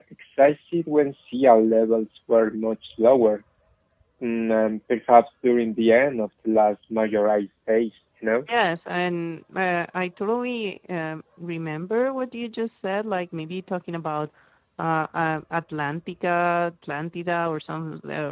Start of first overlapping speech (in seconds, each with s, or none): none